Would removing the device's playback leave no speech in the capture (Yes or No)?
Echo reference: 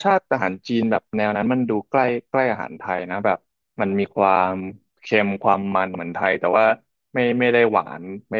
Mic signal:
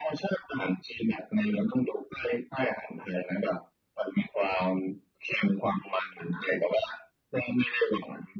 Yes